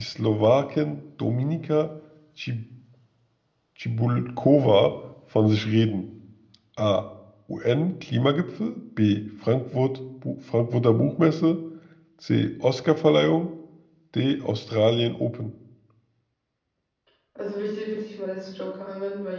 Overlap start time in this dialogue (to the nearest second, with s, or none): none